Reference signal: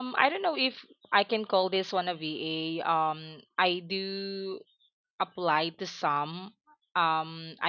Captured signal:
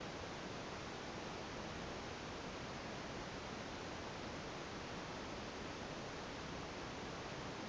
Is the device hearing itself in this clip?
No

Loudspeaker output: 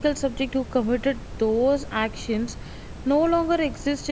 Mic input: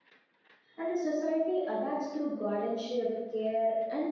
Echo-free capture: Yes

